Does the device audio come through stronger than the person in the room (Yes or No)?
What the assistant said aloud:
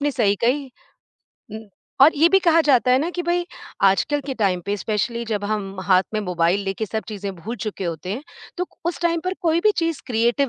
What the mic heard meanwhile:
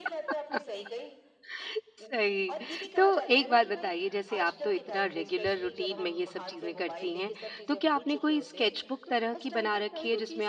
No